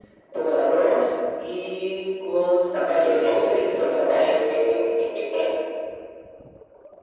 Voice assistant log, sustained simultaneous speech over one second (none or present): present